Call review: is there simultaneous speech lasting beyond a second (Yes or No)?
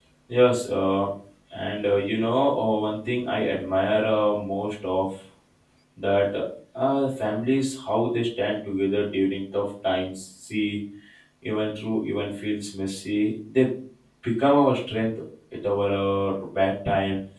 No